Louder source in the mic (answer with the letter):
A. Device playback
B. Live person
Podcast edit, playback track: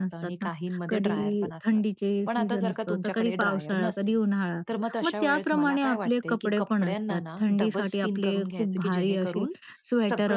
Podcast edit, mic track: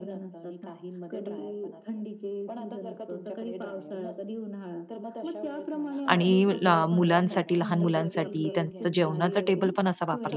B